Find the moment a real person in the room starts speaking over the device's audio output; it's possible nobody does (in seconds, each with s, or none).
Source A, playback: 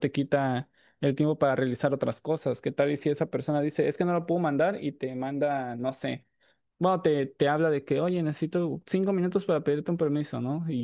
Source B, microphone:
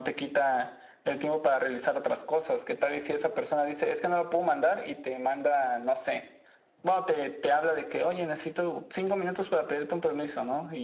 none